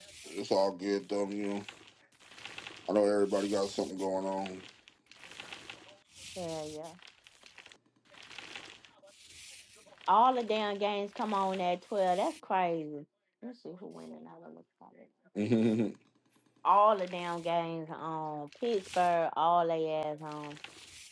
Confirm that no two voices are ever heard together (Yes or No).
Yes